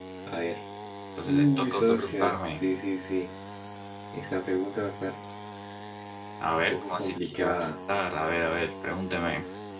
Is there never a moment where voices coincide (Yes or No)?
No